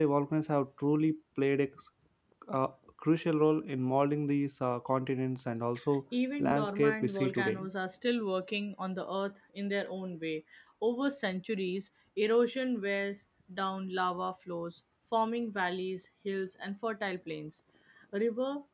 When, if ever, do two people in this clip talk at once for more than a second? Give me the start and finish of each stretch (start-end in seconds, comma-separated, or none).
6.4-7.6